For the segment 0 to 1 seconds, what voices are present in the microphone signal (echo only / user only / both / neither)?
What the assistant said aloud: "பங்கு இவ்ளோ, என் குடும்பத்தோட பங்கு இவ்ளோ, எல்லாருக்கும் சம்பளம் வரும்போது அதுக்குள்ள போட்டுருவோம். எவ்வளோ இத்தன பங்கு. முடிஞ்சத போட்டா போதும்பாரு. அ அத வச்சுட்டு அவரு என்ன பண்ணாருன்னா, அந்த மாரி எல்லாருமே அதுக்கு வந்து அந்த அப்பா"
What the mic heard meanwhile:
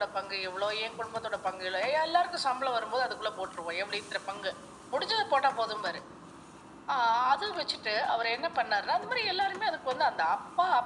echo only